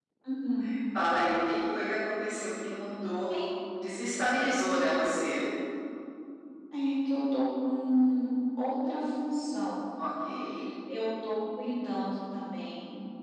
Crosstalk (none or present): none